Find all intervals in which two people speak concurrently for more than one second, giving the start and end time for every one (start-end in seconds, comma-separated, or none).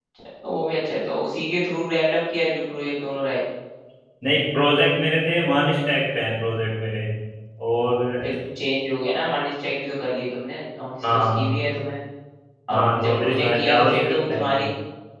12.7-14.4